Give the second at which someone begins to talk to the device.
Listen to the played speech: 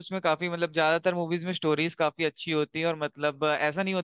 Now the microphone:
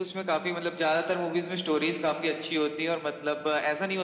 none

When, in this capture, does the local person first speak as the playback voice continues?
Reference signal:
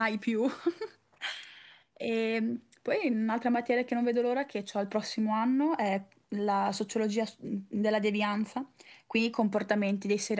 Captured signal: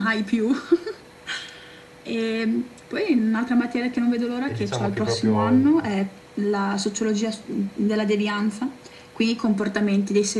4.4 s

